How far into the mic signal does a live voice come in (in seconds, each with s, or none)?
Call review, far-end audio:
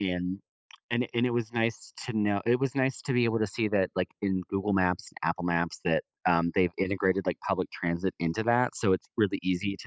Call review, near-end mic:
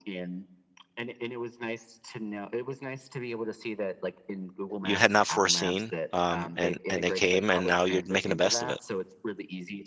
4.8 s